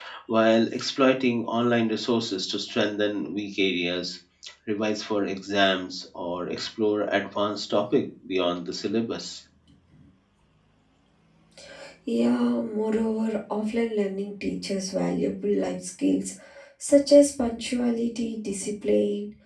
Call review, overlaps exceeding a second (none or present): none